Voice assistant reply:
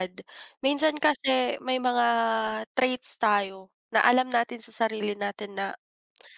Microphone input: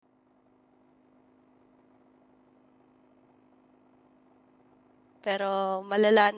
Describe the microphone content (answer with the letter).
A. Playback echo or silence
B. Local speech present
B